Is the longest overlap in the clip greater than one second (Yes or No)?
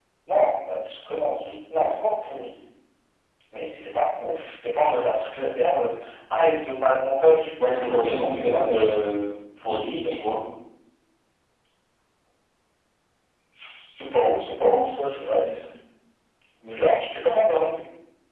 Yes